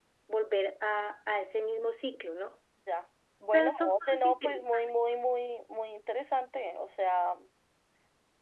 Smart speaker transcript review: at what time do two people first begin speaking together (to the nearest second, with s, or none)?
4 s